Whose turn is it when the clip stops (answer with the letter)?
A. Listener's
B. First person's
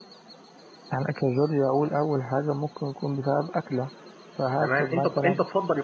A